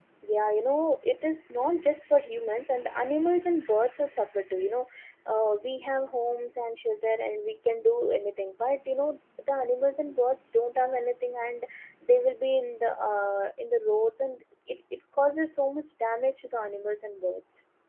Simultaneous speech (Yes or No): No